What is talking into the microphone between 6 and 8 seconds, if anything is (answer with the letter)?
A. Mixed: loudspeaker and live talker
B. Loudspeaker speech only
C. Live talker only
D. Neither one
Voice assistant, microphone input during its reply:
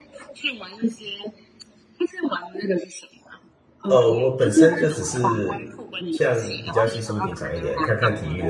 A